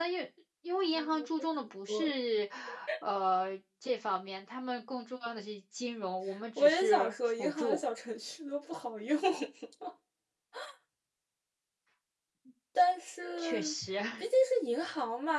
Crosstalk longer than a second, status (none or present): present